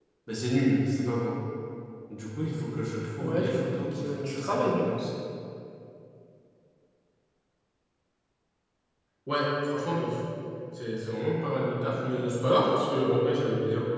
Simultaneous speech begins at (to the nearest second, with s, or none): 3 s